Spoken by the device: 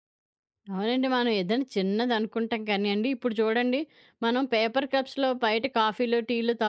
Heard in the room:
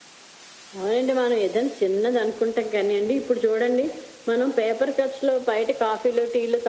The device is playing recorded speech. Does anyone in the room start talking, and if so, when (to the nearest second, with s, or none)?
none